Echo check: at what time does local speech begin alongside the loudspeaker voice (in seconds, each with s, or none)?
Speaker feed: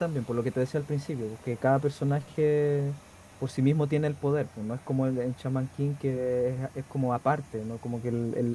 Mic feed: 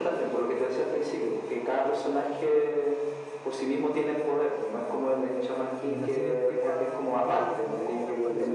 5.8 s